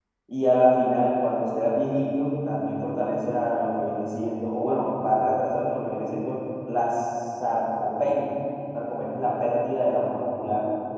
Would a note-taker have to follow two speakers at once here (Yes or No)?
No